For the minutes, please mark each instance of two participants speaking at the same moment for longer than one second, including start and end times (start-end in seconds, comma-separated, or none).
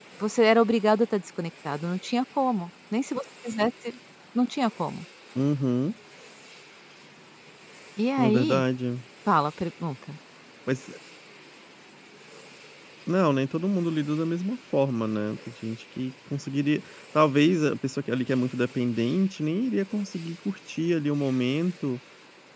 none